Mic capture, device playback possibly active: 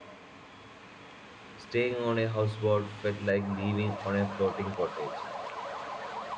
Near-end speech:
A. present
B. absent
A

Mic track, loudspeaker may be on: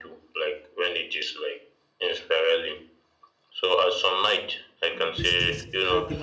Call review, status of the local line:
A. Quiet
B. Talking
B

